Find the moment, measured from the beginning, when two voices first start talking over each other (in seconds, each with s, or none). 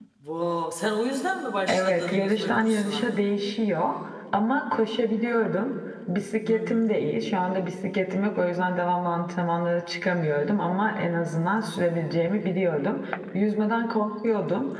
1.7 s